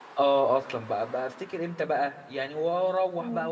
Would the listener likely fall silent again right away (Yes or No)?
Yes